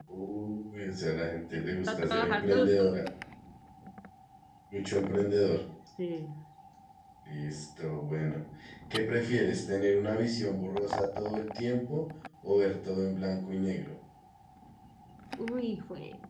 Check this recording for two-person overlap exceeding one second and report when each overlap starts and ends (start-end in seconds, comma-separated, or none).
1.5-2.7